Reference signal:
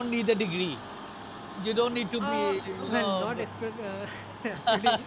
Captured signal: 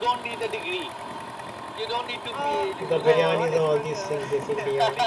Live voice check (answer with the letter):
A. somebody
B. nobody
A